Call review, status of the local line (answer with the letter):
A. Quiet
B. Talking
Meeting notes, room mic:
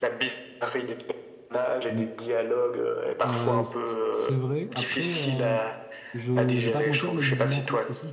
B